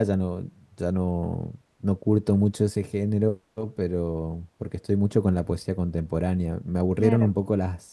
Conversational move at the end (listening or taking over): listening